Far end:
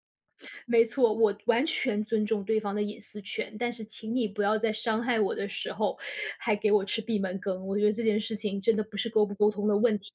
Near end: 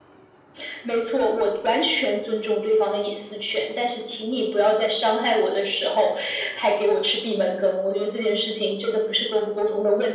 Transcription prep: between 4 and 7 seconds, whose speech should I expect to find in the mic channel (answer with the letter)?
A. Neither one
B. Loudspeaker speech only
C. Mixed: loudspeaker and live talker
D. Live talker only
B